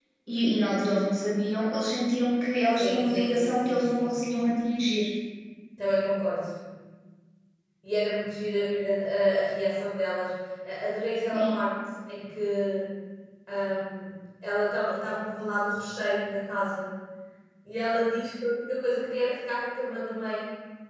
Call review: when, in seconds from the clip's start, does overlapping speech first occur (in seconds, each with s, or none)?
2.7 s